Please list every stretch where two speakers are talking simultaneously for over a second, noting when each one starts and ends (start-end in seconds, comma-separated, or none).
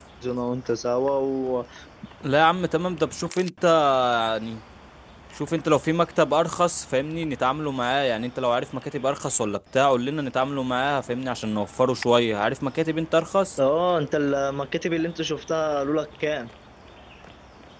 none